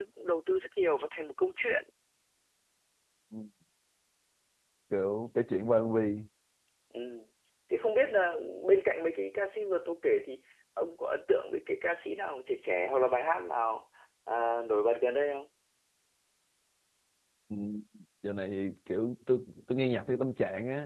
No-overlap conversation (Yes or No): Yes